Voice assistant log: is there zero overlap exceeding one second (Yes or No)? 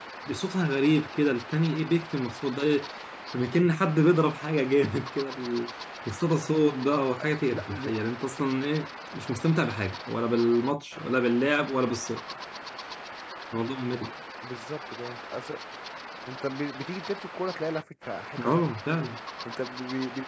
Yes